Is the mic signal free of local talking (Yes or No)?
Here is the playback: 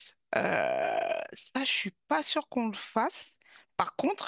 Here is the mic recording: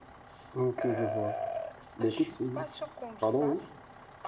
No